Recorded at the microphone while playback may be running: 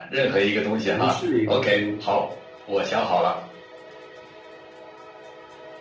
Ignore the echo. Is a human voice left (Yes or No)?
Yes